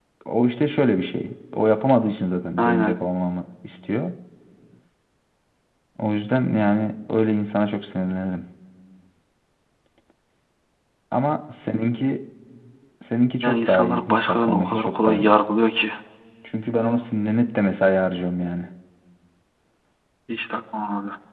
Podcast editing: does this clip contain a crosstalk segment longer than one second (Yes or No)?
Yes